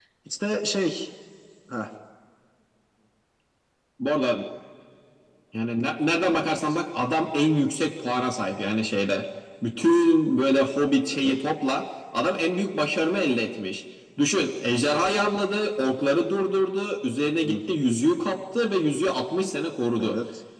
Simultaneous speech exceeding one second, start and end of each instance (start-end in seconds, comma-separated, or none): none